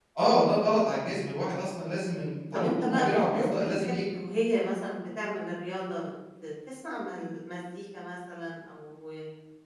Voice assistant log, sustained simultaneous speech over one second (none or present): present